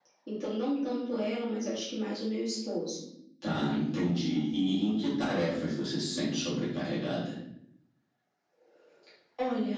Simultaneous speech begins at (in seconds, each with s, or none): none